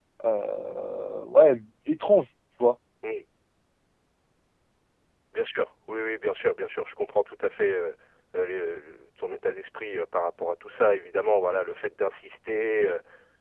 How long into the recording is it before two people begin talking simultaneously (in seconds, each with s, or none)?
none